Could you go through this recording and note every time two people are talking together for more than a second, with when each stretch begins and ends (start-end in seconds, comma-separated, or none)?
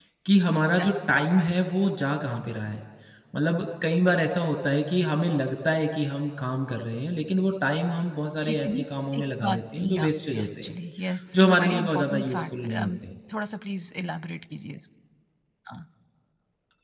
9.2-10.8, 11.4-12.9